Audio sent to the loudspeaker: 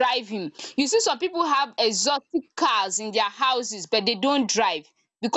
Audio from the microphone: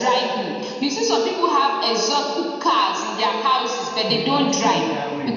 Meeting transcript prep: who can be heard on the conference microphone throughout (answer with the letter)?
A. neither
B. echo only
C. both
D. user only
C